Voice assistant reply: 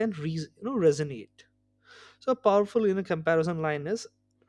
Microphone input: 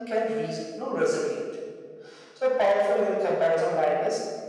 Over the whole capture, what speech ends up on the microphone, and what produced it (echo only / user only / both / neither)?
echo only